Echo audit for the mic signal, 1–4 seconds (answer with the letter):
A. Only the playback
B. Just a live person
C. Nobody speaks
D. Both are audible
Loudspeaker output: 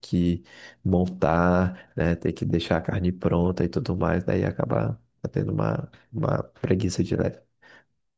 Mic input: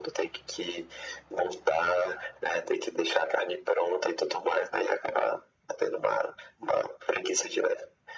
A